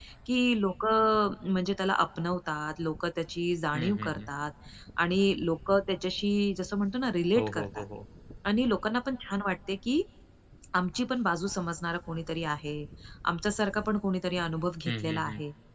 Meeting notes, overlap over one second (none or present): none